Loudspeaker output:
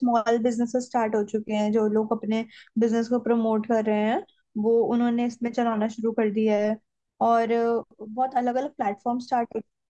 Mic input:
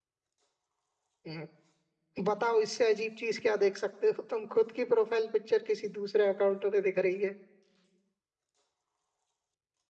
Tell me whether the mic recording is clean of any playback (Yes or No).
Yes